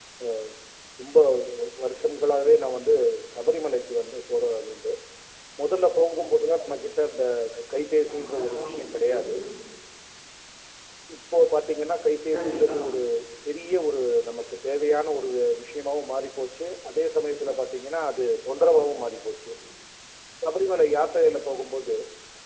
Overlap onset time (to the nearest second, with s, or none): 8 s